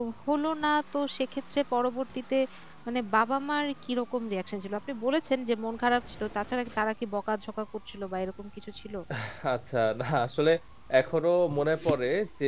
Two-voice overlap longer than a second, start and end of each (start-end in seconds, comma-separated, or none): none